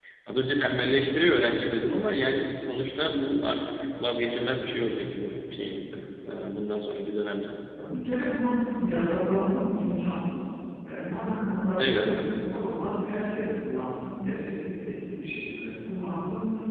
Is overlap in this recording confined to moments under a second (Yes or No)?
Yes